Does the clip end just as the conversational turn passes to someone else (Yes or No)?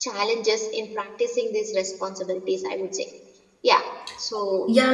Yes